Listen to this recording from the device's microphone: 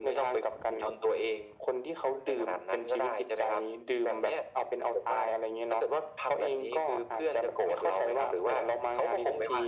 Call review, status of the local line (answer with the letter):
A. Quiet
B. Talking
A